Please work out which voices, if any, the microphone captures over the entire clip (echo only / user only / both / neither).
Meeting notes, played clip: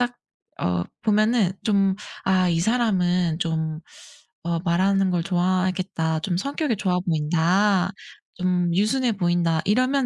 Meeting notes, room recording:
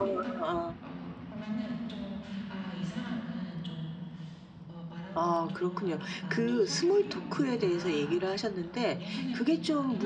both